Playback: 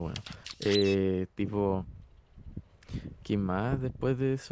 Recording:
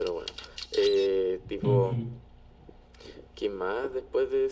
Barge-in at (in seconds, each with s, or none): 1.6 s